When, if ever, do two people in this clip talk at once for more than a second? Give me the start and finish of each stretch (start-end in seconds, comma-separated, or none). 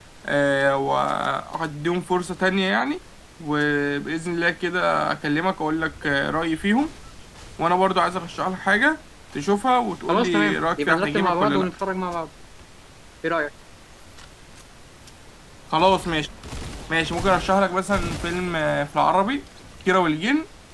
10.1-11.7